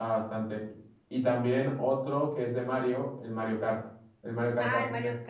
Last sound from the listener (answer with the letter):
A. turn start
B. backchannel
A